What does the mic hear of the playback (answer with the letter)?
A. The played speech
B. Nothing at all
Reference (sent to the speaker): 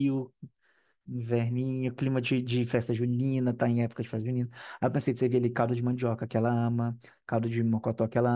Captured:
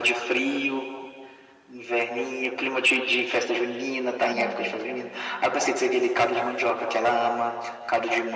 A